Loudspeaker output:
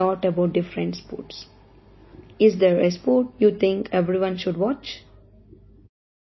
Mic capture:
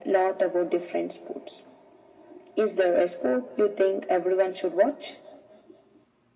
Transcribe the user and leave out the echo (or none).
none